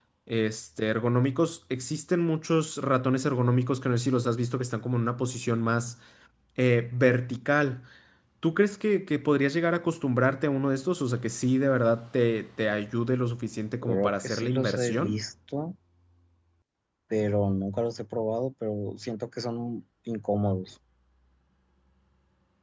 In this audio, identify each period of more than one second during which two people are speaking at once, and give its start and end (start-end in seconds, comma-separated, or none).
13.8-15.2